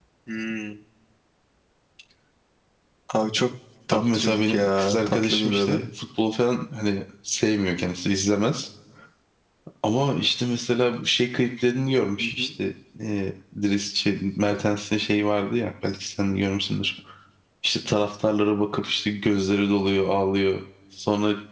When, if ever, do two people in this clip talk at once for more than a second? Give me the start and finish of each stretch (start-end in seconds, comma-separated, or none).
3.9-5.8